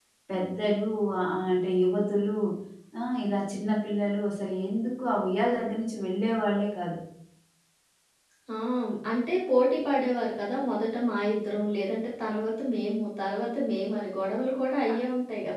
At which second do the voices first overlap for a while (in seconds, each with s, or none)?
none